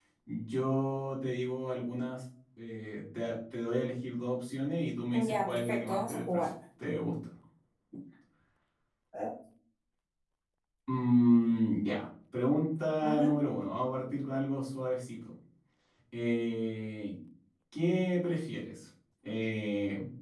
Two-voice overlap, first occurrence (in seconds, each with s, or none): 5.1 s